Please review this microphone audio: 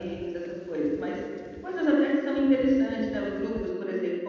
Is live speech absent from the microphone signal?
Yes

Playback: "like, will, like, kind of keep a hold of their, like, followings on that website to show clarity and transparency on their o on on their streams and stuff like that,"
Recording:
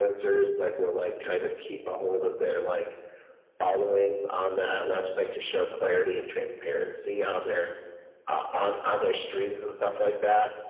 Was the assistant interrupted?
No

